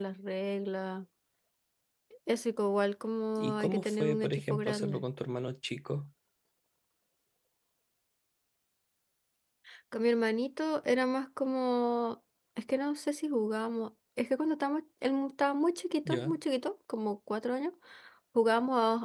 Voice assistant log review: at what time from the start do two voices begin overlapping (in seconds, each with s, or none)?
3.4 s